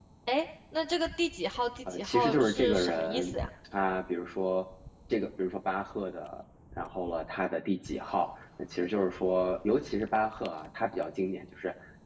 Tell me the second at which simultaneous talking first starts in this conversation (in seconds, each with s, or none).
1.9 s